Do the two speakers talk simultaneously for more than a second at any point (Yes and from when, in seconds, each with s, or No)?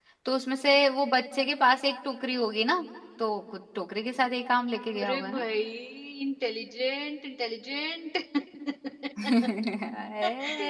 No